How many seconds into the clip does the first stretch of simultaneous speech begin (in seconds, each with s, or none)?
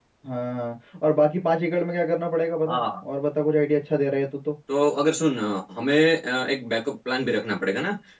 none